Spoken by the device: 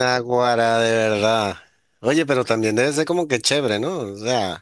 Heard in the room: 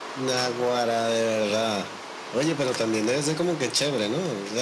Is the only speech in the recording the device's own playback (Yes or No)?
Yes